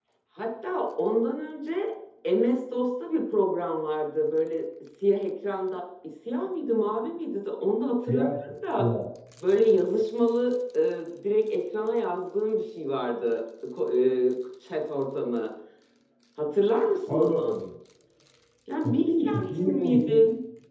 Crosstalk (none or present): present